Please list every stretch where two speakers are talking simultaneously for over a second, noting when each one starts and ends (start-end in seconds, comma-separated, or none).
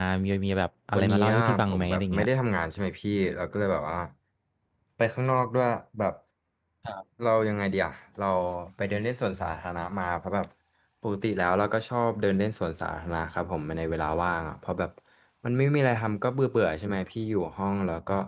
1.0-2.2